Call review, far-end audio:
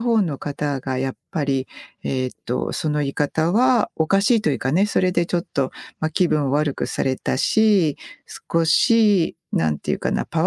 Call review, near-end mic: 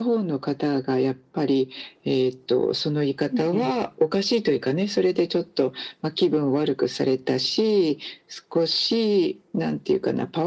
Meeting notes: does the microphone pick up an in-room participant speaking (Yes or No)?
Yes